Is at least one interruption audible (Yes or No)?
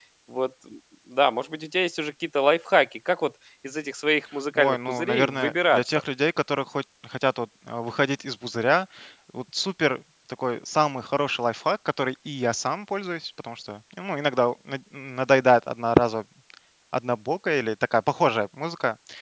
Yes